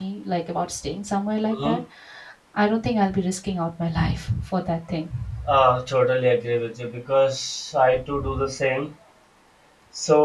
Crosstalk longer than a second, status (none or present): none